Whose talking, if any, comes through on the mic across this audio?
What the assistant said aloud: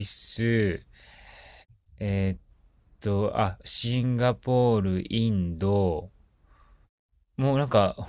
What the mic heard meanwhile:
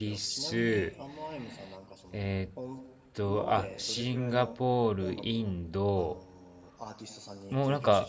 both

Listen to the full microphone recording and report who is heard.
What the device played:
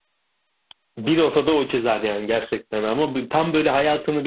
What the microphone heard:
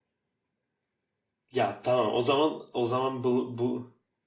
user only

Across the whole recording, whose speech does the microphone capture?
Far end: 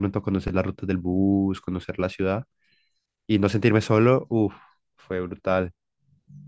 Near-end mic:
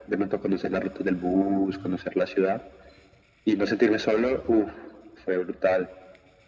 echo only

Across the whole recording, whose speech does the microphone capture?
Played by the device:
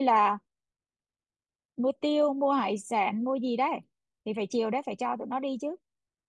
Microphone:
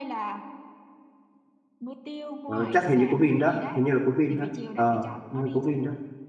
both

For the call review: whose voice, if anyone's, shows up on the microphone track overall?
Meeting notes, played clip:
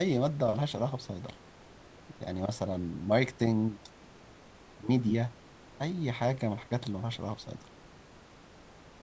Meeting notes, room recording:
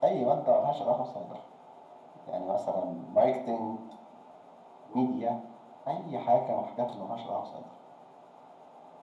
echo only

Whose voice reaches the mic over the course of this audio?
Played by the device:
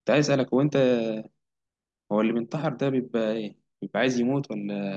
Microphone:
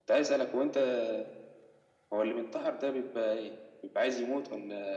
echo only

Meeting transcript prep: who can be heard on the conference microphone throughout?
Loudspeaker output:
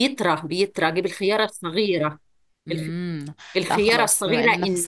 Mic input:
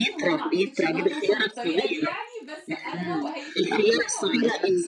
both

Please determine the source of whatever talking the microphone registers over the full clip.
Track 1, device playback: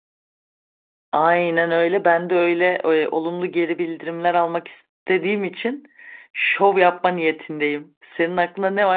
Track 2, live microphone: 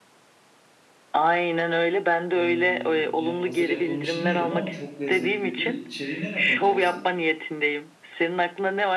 both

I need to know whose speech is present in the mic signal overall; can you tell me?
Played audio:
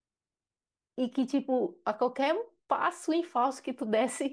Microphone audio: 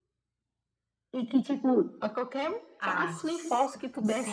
both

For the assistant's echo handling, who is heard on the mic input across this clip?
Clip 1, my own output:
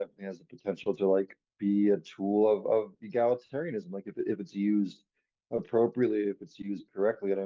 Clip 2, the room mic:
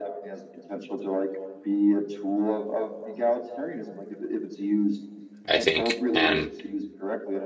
both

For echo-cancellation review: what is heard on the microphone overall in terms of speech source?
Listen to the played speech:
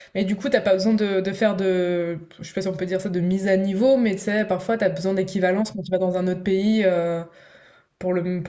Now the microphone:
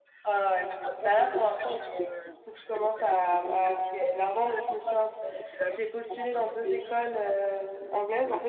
both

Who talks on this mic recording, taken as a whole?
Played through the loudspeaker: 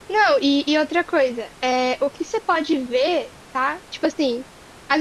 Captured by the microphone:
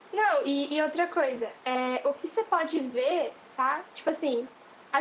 echo only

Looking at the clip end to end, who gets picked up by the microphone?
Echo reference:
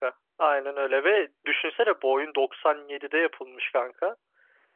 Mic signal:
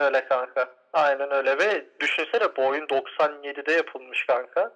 echo only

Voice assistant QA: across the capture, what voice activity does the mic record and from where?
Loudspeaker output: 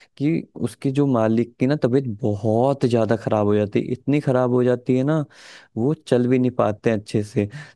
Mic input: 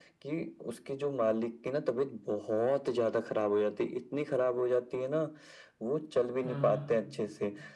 both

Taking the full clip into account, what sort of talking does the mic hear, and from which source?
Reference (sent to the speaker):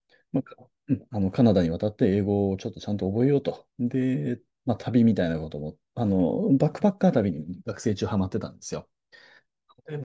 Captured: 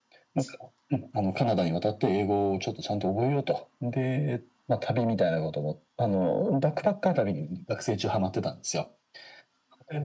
echo only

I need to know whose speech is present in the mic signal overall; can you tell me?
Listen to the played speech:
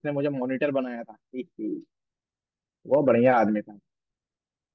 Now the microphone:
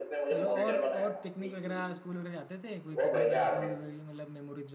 both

